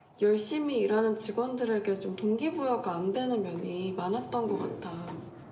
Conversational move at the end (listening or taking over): taking over